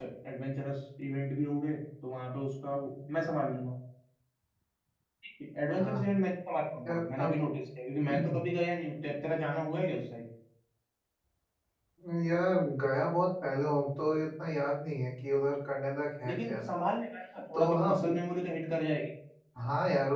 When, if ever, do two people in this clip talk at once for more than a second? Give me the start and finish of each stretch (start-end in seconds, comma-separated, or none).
none